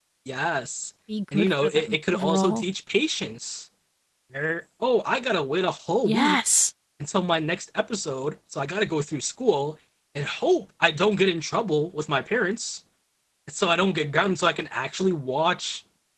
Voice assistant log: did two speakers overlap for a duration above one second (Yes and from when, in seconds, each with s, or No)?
Yes, from 1.3 s